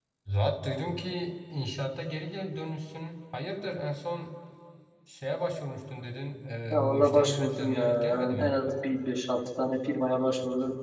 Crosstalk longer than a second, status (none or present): present